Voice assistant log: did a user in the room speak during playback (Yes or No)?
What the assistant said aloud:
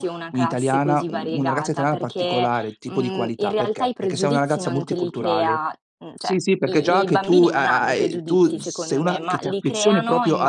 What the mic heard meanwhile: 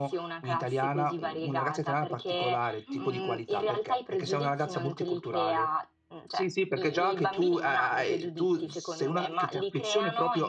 Yes